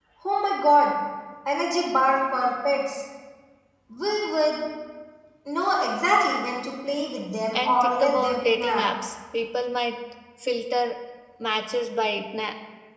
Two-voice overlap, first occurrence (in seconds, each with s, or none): 7.5 s